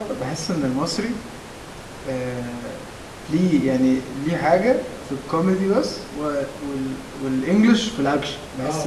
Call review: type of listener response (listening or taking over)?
taking over